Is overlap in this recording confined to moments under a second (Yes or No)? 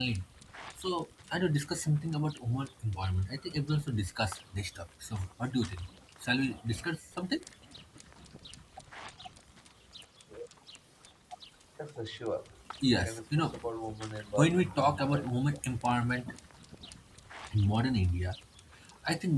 No